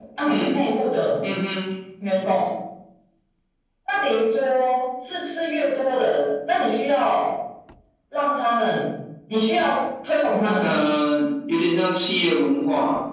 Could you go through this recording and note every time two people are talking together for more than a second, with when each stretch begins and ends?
none

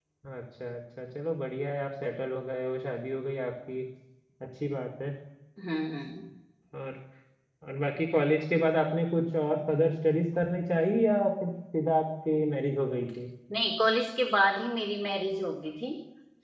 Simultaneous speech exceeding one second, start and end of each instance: none

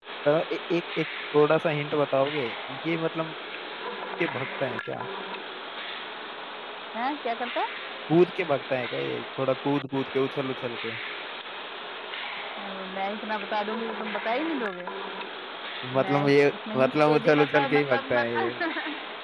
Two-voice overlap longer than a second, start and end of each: 16.7-18.5

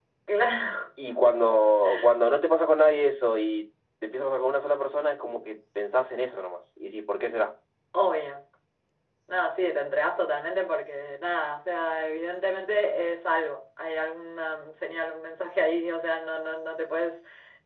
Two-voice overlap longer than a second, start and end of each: none

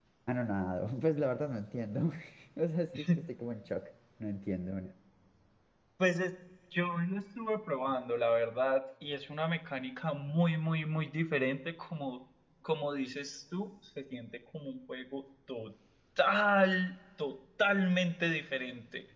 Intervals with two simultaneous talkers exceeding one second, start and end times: none

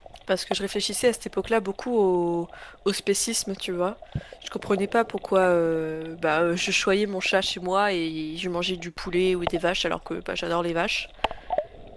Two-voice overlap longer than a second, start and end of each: none

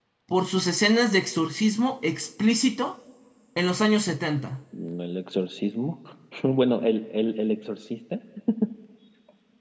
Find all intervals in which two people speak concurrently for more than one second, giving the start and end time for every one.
none

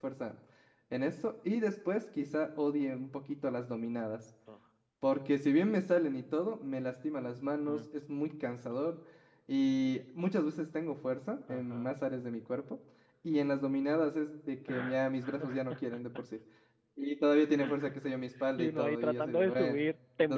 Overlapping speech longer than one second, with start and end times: 18.6-19.8

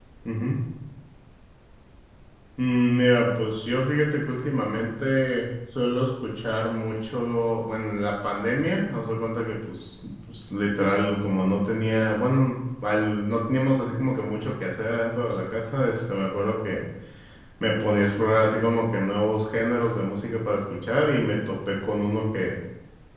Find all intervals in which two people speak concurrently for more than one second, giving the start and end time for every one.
none

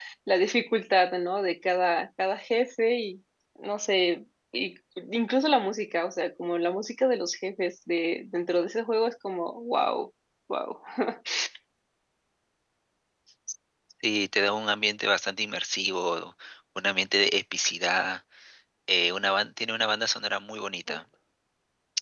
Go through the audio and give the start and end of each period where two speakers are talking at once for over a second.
none

